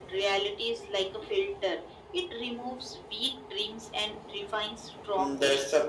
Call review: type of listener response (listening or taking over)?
taking over